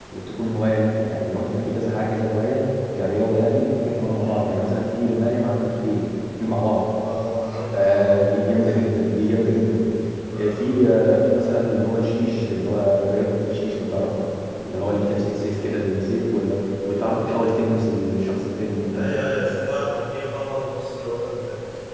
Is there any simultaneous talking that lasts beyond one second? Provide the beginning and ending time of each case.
7.7-9.0

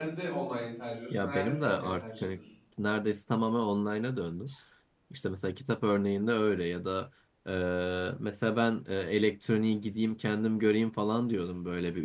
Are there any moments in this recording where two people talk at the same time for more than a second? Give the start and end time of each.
1.1-2.4

